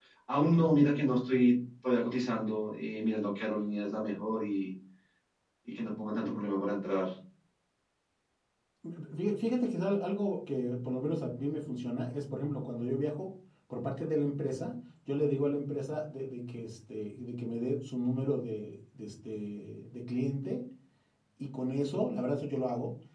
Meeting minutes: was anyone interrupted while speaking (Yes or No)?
No